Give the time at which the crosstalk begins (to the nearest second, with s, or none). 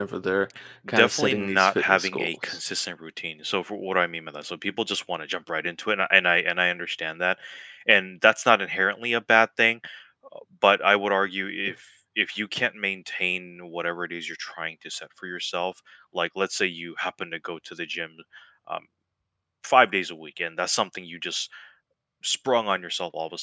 1 s